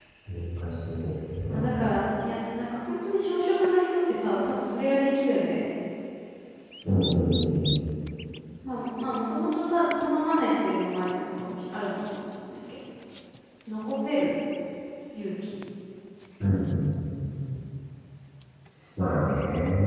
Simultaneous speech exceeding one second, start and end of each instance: none

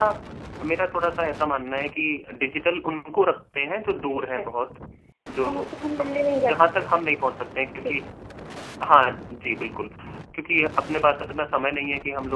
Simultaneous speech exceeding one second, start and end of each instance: none

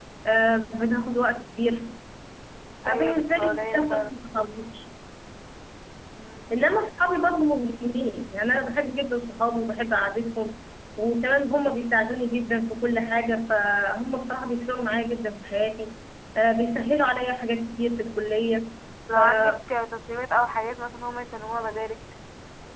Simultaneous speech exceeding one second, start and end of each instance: 2.9-4.1

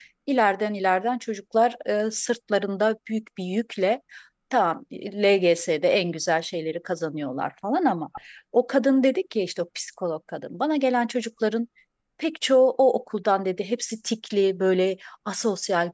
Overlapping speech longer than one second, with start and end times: none

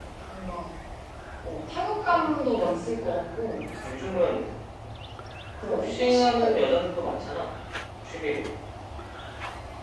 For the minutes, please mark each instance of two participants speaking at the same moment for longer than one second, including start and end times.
5.7-7.0

